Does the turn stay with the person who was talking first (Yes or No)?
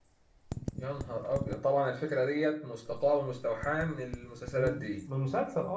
No